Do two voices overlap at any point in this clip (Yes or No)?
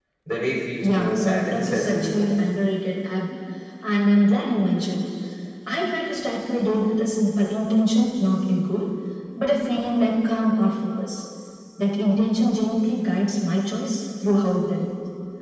Yes